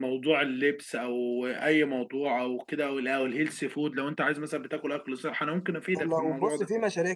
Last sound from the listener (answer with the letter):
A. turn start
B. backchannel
A